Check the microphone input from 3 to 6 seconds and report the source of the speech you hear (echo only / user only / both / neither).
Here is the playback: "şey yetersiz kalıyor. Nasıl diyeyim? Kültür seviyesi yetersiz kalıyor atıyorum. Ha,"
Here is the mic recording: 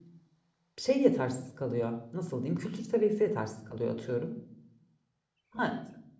echo only